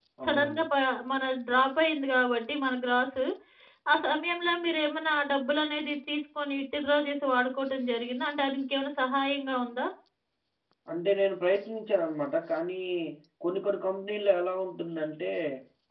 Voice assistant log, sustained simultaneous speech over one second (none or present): none